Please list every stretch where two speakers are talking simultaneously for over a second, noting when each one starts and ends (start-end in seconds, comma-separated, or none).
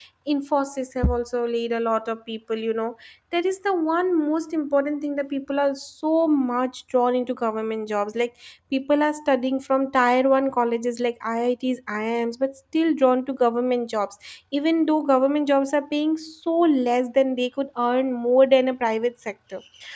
none